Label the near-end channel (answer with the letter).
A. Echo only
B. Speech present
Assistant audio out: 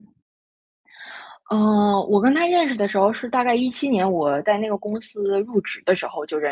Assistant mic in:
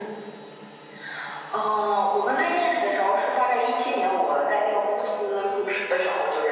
A